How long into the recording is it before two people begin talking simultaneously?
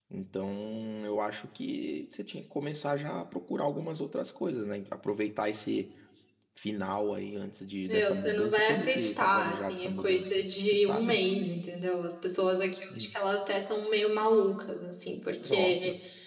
7.9 s

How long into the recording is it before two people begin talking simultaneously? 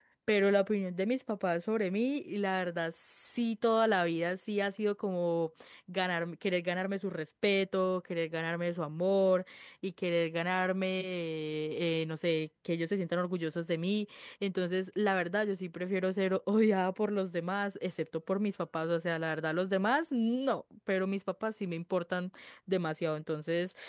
none

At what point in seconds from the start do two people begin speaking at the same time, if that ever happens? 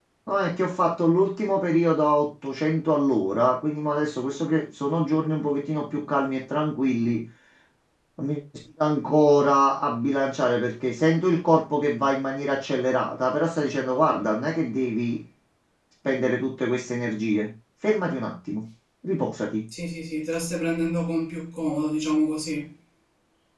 none

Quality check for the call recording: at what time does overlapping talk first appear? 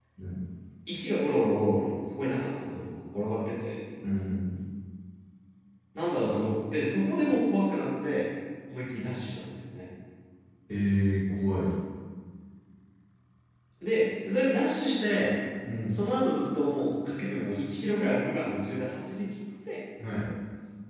none

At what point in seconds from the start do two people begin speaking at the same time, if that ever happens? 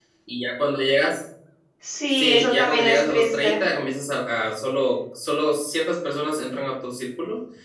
2.1 s

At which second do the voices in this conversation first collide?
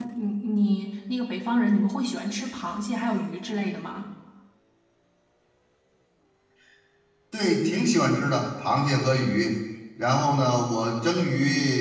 none

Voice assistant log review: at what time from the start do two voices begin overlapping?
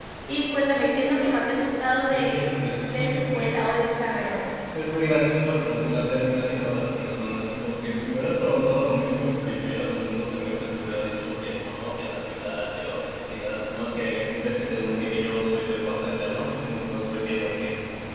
2.1 s

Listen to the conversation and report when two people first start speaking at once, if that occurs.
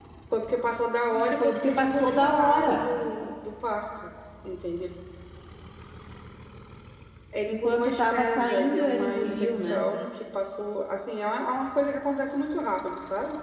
1.1 s

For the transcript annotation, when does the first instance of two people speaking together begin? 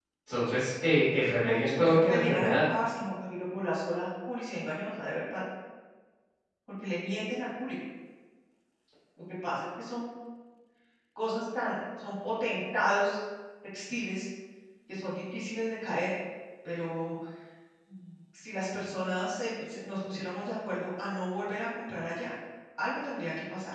1.4 s

